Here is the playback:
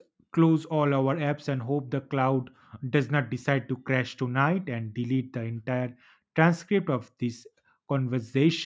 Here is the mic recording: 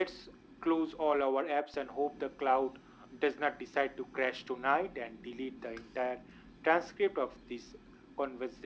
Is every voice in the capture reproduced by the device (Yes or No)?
Yes